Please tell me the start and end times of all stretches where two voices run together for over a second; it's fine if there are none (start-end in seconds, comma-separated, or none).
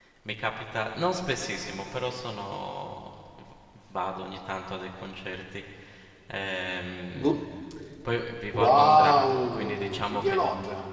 8.5-10.4